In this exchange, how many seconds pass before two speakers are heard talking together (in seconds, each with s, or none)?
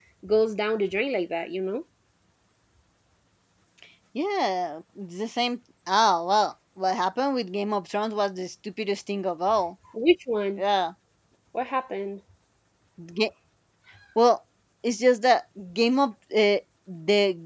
none